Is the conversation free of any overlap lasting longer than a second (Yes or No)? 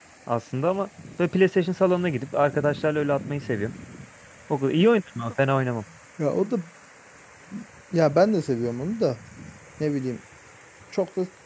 Yes